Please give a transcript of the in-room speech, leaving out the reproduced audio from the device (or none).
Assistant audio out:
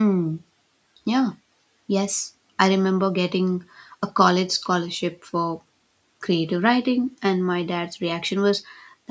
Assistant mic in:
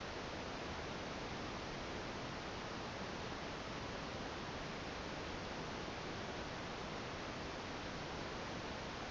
none